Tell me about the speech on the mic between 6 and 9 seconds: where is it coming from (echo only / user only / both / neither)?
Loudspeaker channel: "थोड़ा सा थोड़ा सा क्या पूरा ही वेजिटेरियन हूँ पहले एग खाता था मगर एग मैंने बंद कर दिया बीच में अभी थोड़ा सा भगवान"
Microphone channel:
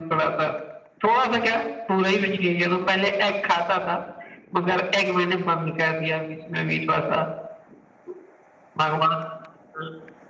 echo only